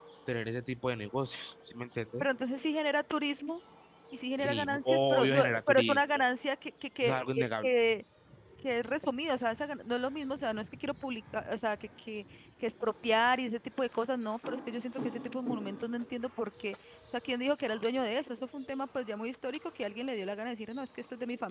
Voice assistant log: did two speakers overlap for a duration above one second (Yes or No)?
Yes